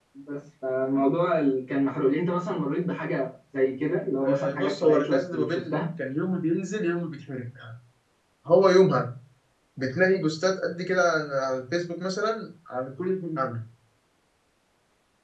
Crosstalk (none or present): present